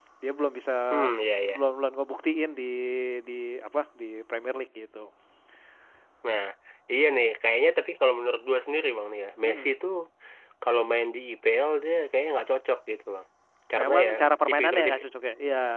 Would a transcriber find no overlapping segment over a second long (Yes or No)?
Yes